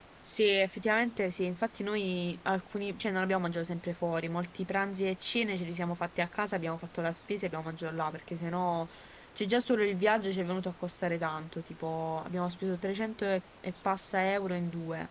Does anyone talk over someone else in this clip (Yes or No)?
No